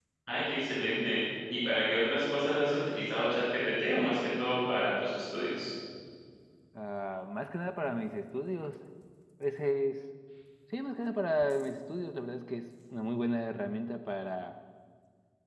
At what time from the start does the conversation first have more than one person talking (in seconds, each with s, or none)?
none